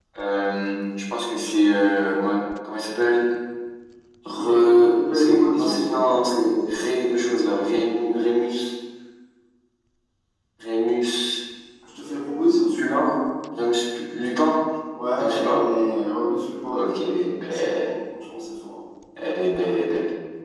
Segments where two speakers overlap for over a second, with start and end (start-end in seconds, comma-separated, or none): 4.3-6.1